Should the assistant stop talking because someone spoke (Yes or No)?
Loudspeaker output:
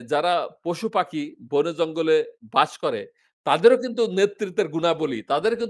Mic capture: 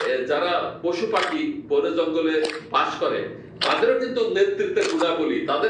No